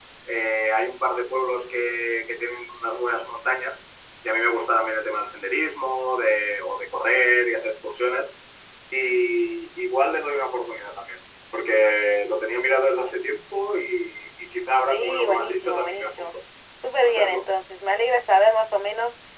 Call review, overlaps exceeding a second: present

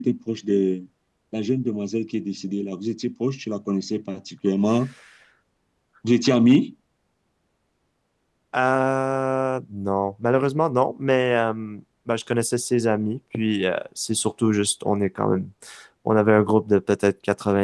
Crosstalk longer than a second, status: none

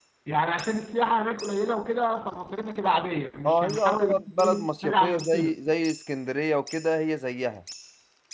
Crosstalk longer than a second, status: present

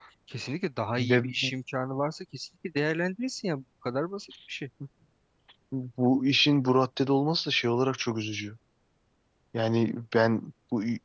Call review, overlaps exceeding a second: none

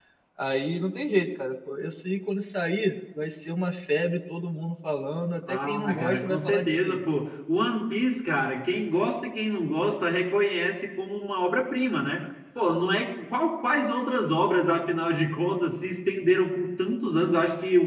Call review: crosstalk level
present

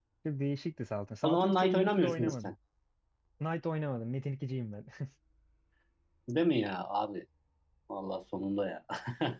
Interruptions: present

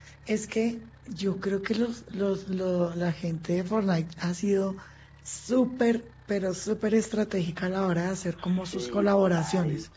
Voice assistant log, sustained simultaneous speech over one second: present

